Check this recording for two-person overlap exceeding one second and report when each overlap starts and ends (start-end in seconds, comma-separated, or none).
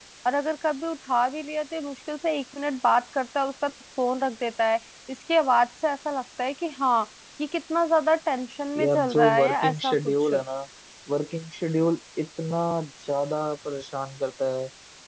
8.8-10.3